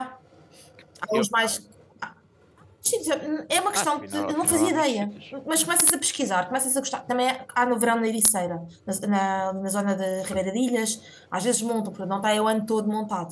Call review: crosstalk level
present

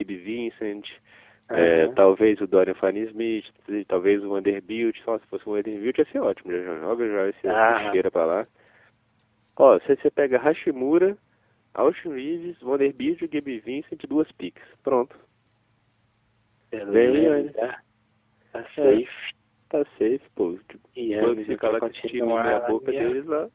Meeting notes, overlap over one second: present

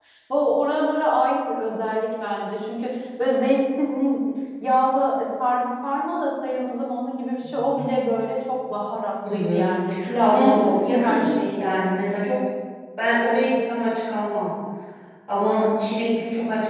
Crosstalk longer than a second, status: present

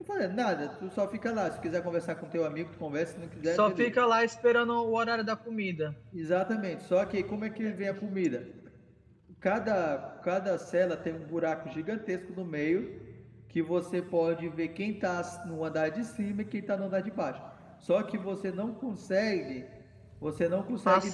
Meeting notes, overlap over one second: none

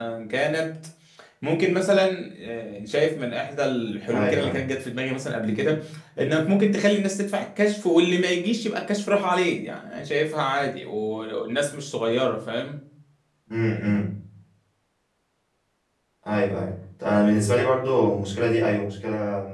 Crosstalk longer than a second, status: none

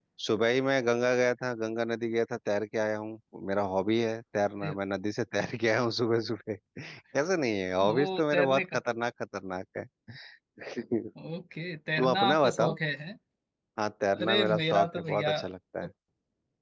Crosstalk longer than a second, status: present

